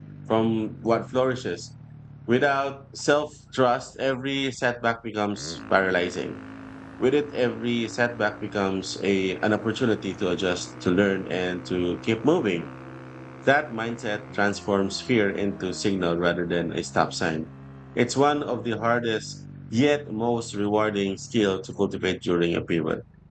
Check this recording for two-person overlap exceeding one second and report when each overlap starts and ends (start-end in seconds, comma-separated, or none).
none